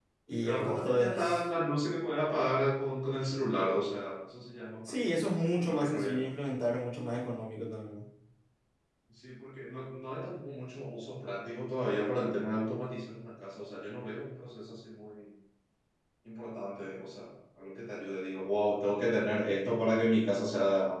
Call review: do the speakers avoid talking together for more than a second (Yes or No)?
No